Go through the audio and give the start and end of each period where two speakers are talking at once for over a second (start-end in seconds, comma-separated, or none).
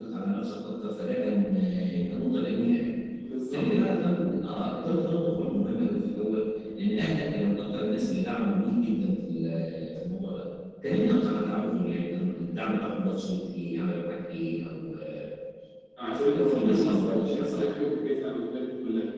16.1-17.6